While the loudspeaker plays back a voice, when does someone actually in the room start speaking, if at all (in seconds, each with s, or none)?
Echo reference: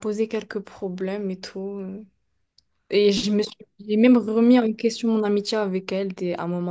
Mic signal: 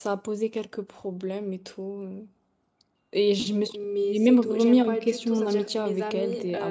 3.7 s